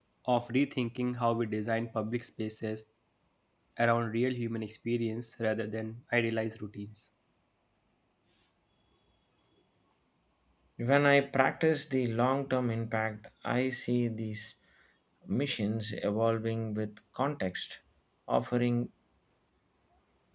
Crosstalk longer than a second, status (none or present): none